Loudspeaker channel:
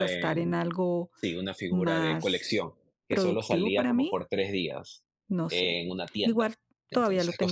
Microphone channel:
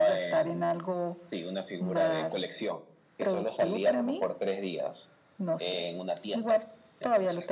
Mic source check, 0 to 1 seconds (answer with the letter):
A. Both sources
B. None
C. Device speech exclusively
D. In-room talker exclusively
C